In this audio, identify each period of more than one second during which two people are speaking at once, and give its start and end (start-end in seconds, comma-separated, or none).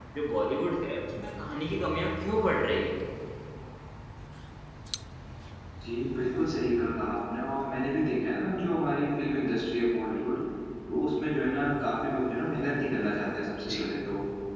none